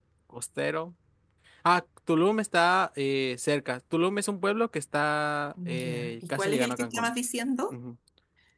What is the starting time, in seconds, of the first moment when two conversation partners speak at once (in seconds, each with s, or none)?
5.6 s